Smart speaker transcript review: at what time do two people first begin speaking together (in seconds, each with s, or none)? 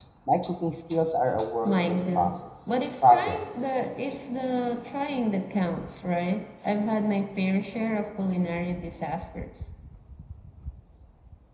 1.6 s